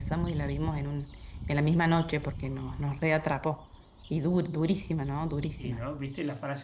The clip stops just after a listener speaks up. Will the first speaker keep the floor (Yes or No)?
No